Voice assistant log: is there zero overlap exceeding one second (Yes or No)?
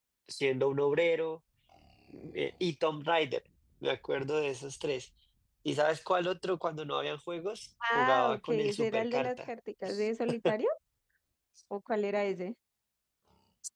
No